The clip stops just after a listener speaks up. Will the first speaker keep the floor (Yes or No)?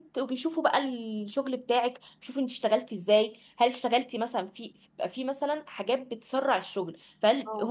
Yes